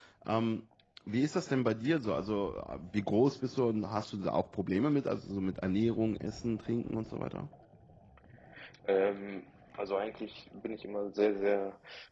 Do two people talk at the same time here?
No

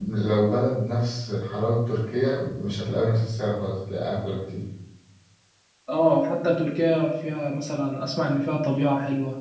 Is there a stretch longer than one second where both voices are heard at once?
No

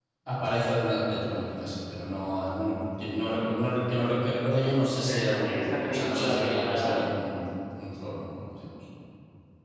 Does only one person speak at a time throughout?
No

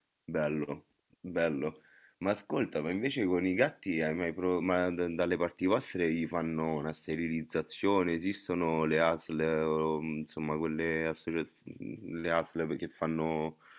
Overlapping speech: No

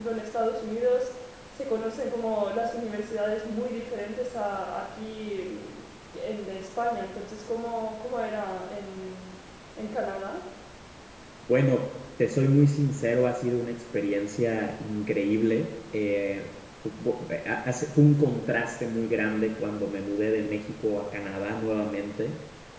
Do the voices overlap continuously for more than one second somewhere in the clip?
No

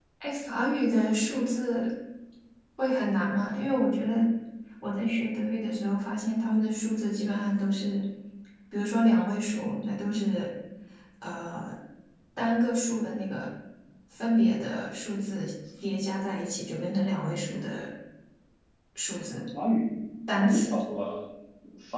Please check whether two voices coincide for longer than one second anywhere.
No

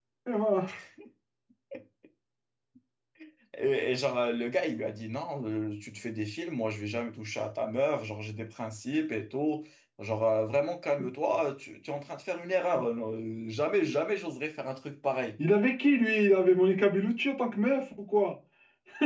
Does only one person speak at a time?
Yes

